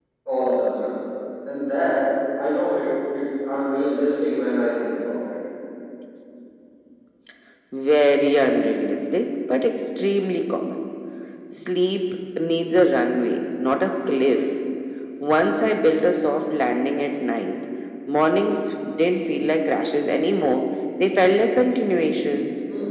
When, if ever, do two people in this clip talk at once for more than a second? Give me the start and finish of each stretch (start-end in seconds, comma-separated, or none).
none